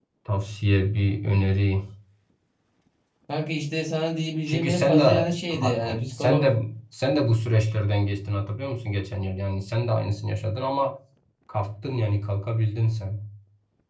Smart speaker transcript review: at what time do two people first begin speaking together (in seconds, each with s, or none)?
4.5 s